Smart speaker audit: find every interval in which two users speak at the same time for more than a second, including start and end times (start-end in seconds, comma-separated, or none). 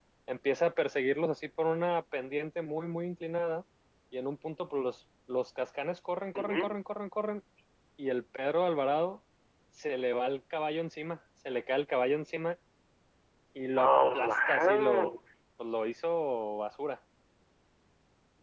13.8-15.1